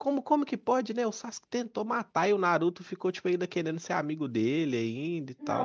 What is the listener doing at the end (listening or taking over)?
taking over